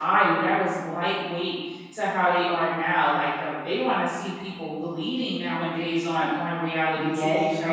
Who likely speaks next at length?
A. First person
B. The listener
B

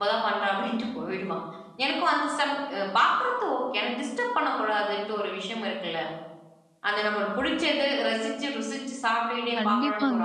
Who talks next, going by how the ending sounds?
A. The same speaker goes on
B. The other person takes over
B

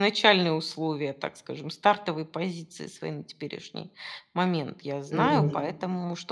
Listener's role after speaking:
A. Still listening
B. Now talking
A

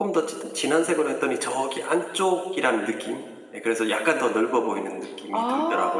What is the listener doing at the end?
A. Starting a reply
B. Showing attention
A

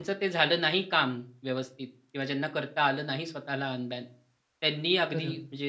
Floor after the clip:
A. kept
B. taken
A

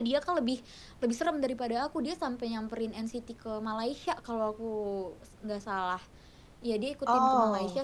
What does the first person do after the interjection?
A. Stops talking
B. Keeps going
B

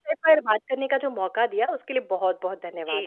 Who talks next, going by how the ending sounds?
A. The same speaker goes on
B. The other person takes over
B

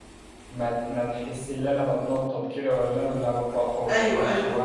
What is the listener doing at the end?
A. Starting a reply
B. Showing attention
A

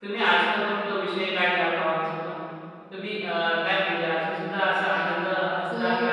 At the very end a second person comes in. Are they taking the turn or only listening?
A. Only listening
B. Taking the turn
B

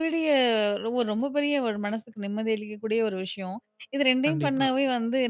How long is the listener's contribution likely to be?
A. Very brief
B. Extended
A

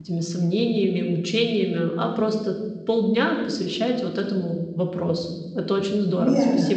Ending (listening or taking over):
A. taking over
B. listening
A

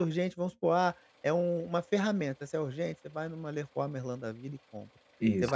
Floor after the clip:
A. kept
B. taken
A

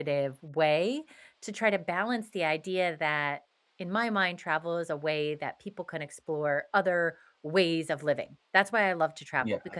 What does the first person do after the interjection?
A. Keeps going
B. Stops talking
A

